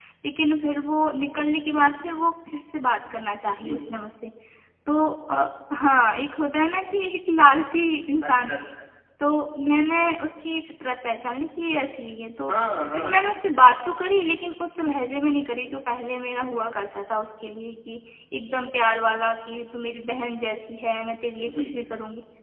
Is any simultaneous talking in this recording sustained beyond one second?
No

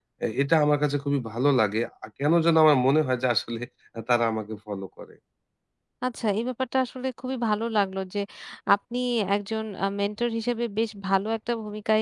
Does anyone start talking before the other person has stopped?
No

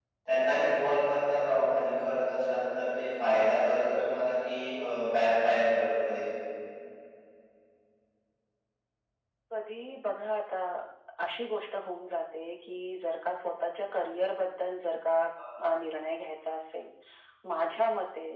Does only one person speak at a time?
Yes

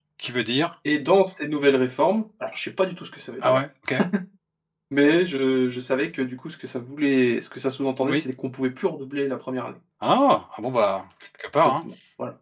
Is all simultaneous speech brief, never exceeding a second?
Yes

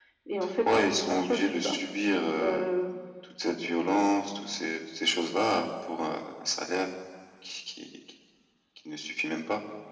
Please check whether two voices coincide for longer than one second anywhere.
Yes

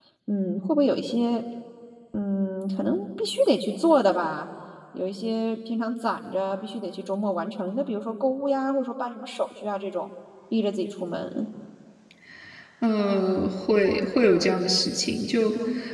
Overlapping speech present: No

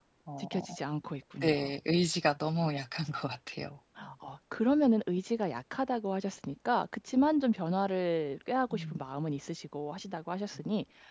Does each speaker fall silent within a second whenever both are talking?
Yes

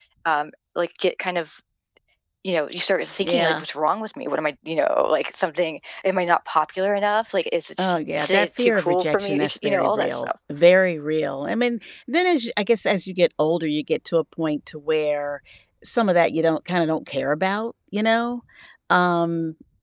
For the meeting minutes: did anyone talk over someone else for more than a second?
Yes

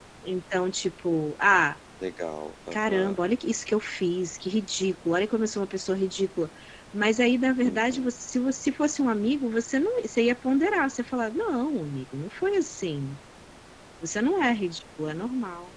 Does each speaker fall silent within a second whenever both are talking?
Yes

